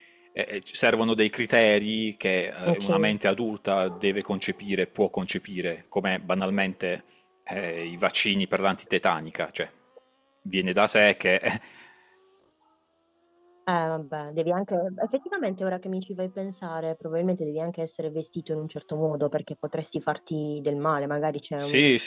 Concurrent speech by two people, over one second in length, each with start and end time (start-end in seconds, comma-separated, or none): none